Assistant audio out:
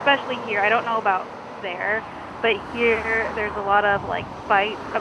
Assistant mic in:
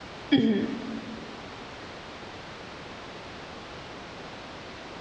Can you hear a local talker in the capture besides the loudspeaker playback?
Yes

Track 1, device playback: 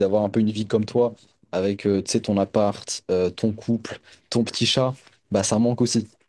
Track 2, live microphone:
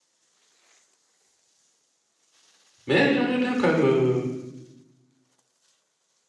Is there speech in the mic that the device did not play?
Yes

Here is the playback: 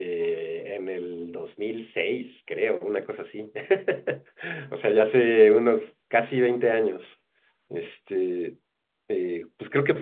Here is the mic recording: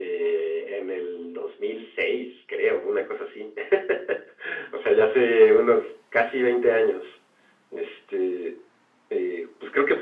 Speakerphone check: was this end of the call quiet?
Yes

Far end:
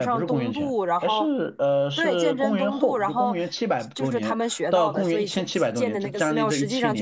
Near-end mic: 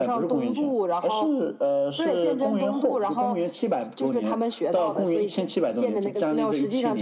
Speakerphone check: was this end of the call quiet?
Yes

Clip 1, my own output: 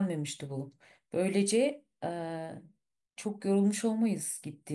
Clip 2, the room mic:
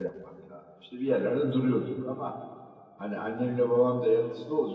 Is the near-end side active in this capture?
Yes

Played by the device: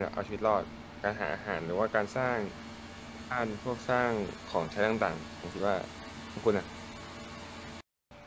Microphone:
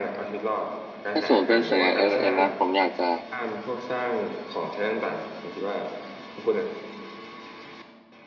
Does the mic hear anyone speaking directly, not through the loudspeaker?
Yes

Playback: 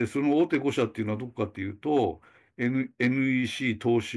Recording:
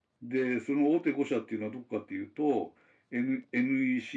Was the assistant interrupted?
No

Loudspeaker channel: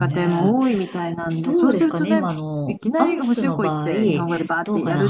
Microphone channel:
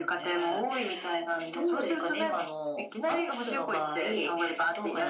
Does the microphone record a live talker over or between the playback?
No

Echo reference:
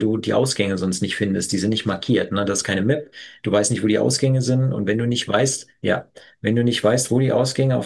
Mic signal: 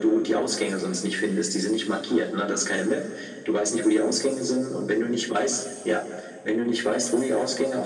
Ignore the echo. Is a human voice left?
No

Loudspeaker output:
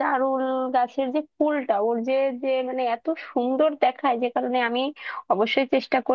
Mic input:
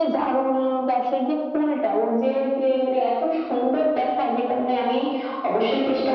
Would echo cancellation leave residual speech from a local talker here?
No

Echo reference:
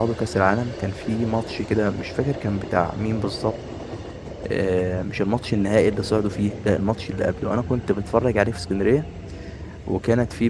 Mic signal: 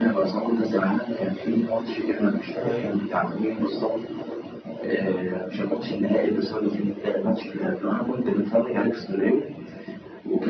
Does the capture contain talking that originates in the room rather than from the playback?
Yes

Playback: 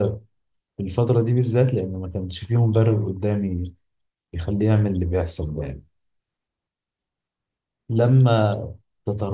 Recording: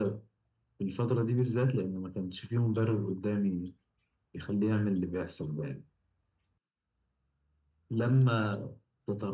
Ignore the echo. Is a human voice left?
No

